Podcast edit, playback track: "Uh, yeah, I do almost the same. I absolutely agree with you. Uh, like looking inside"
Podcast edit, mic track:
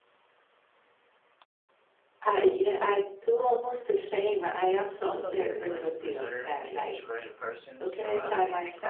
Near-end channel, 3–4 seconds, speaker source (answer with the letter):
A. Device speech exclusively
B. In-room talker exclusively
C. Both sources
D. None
A